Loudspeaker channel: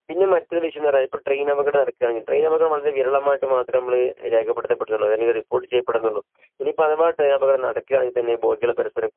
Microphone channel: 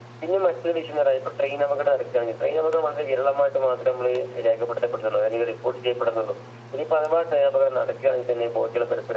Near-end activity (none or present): none